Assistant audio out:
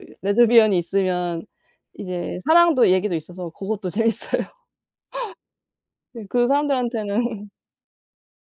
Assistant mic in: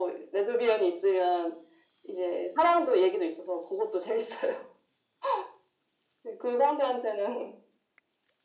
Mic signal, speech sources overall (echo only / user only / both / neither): echo only